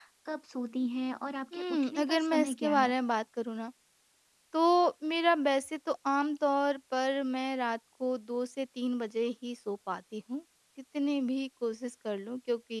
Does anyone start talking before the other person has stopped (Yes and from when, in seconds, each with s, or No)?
Yes, from 1.5 s